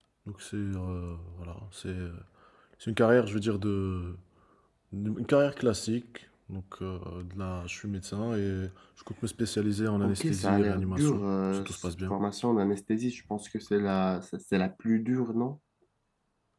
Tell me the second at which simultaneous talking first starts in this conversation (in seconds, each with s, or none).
10.0 s